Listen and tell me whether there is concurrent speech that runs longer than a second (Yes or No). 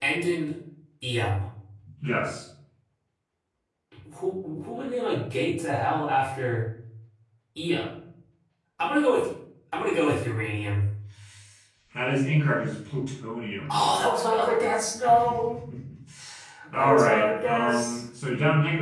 Yes